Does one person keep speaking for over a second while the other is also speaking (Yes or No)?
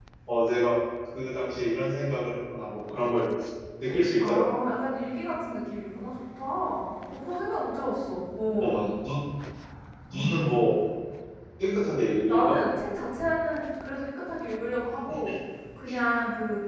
No